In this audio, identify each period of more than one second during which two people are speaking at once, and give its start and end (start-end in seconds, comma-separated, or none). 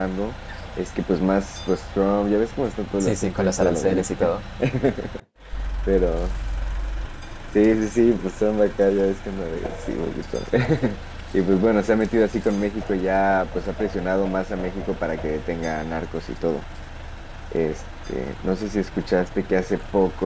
3.0-4.3